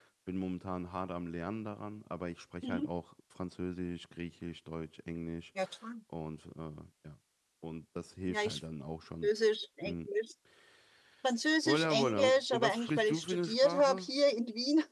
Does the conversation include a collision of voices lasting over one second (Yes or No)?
Yes